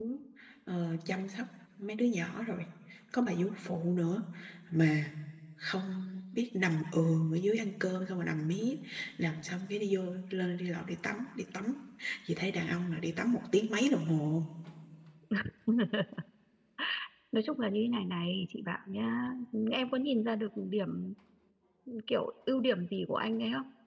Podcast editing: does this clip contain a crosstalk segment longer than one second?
No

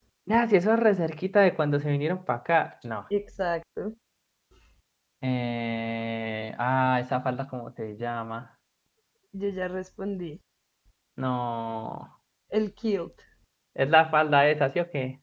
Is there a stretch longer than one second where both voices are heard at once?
No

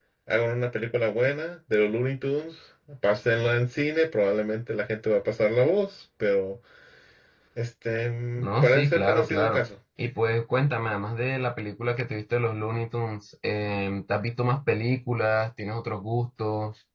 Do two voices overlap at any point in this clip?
Yes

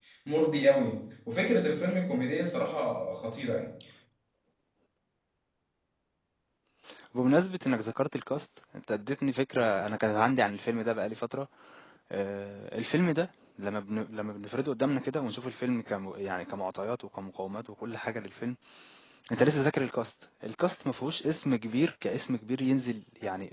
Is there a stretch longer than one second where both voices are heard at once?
No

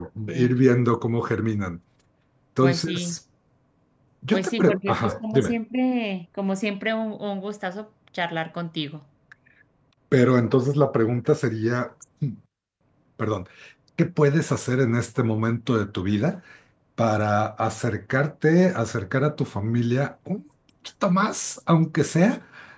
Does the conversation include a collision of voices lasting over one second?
Yes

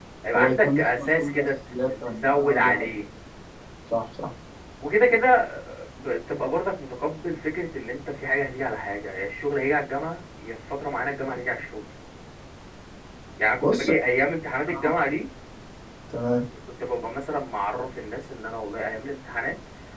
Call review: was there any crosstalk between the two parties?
Yes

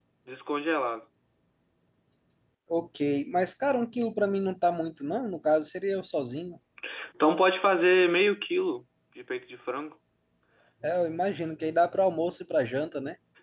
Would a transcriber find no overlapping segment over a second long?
Yes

